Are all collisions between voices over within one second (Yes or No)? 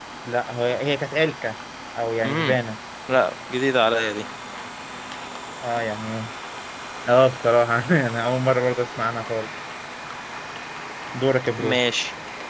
Yes